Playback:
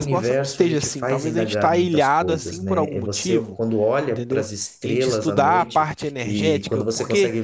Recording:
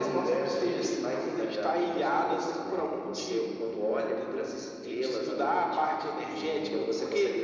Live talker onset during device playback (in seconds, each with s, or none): none